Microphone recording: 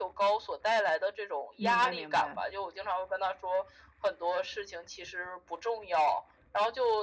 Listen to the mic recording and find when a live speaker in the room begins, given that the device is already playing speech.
1.6 s

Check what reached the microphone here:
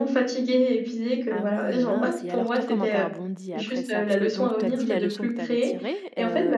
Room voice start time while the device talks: 1.3 s

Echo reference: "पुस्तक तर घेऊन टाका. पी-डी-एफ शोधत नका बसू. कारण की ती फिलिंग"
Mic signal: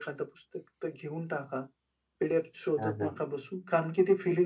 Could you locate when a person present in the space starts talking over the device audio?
2.8 s

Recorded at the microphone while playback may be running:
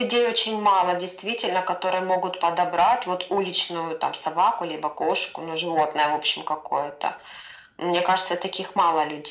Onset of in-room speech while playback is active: none

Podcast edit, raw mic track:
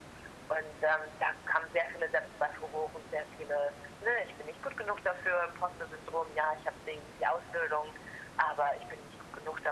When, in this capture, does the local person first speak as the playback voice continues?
none

